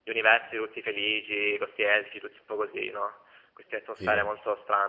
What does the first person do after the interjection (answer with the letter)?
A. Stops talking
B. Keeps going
B